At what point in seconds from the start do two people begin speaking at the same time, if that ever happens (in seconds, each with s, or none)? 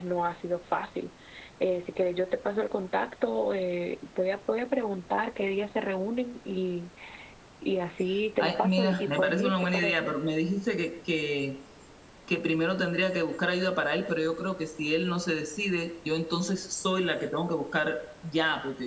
8.4 s